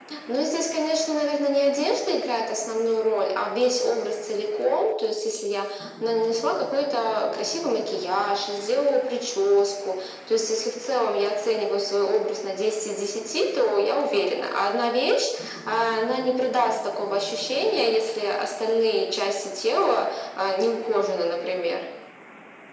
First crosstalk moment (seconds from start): none

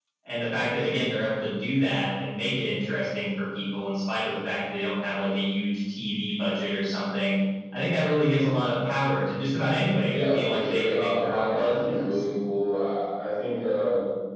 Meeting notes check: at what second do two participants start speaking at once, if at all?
10.1 s

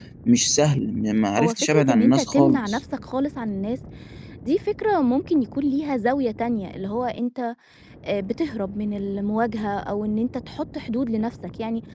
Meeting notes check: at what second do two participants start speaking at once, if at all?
1.4 s

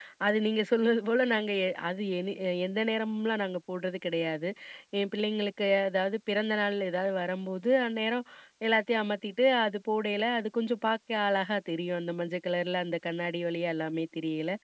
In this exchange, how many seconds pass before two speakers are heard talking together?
none

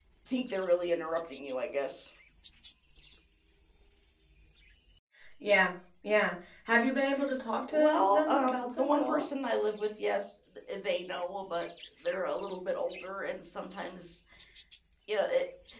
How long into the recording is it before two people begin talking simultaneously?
7.7 s

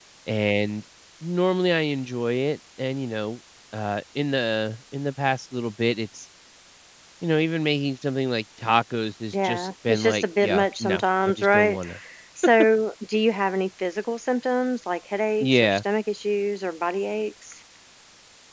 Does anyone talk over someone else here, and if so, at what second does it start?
9.3 s

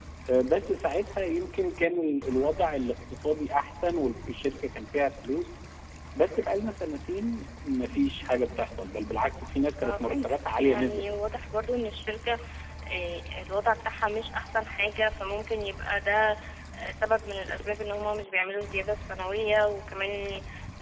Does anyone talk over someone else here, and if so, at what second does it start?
9.8 s

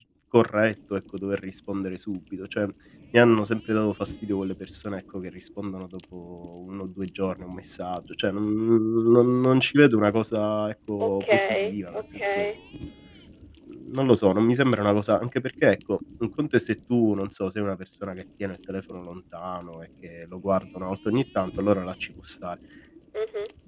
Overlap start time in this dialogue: 11.0 s

